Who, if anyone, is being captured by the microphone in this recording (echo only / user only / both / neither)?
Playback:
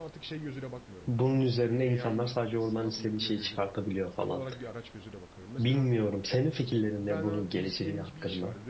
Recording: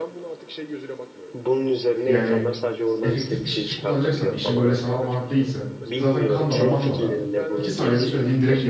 both